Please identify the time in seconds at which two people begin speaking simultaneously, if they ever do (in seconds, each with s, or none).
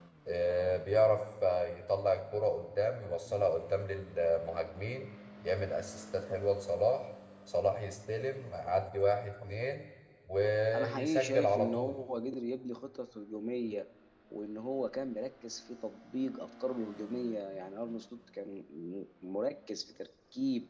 10.7 s